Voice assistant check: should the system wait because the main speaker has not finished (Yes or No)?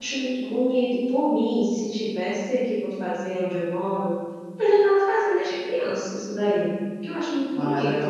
No